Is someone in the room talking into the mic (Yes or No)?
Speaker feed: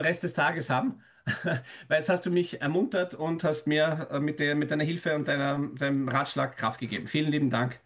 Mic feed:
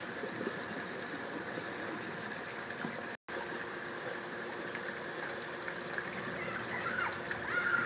No